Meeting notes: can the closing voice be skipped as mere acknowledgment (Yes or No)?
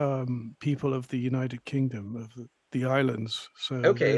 No